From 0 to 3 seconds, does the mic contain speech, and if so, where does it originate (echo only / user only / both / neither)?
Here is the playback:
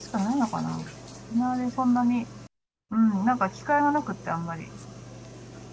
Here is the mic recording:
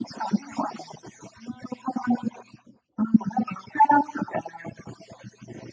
echo only